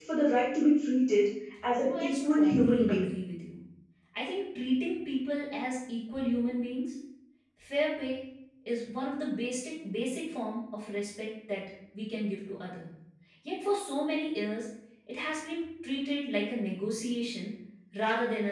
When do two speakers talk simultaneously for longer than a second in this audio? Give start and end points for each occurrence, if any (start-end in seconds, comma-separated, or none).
1.8-3.1